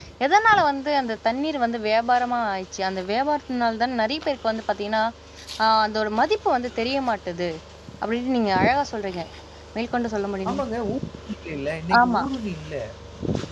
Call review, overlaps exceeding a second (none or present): none